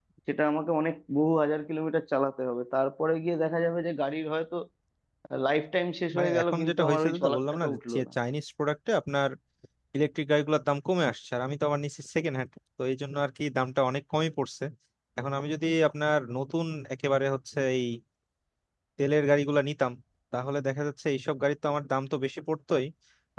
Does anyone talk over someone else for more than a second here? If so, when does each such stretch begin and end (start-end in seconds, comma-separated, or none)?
6.2-8.1